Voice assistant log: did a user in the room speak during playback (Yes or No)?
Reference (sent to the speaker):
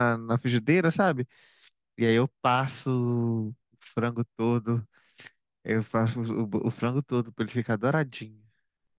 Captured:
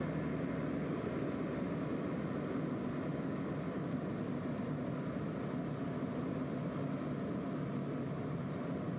No